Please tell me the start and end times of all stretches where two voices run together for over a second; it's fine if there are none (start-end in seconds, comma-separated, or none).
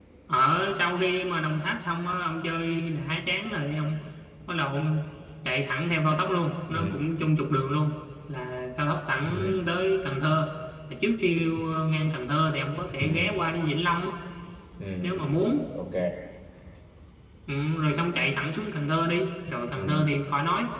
none